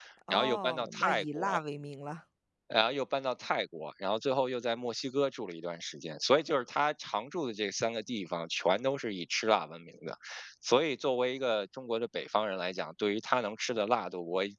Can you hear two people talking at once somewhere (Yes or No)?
Yes